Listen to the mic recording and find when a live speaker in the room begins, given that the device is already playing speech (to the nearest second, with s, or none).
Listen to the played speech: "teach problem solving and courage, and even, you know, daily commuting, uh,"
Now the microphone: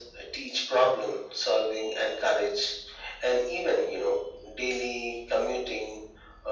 none